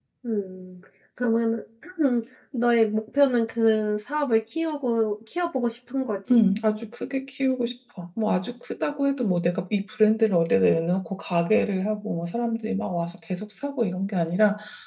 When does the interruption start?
none

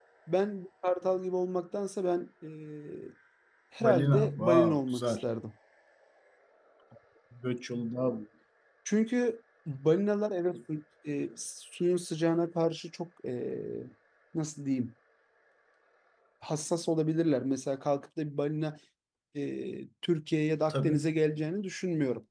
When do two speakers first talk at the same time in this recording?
4 s

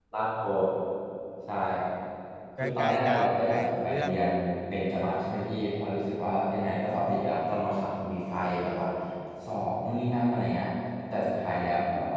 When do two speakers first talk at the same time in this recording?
3 s

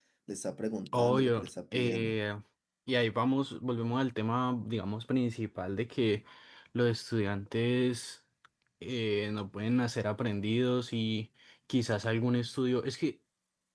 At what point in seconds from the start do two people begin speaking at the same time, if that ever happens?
1 s

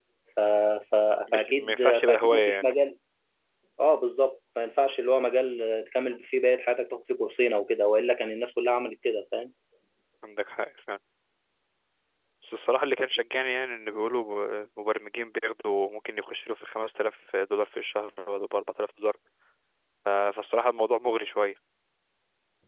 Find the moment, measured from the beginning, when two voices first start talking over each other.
1 s

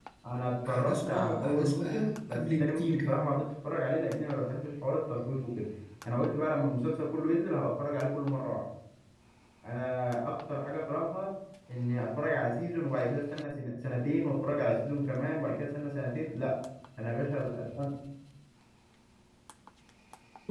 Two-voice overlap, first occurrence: 1 s

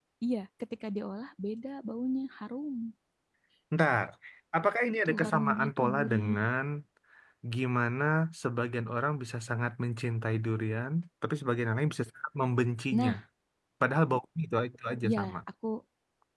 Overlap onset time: 5 s

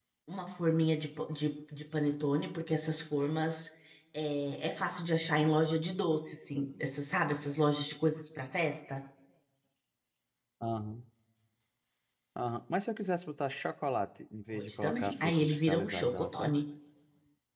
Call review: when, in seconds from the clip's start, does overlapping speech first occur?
15 s

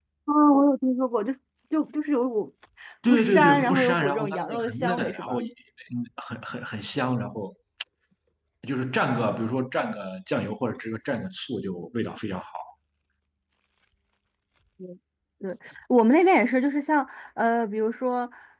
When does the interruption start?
3 s

